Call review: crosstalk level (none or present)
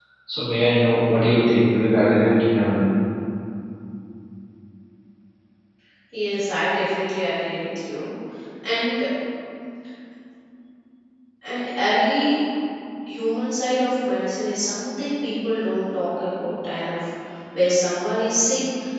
none